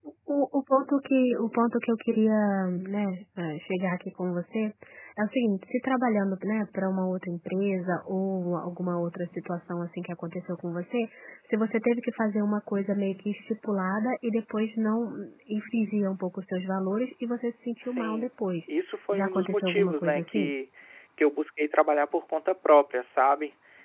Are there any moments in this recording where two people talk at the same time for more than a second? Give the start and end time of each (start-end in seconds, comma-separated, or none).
19.1-20.5